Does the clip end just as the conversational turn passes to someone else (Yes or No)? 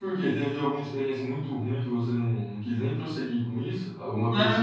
Yes